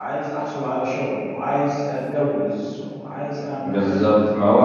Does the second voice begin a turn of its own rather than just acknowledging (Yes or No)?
Yes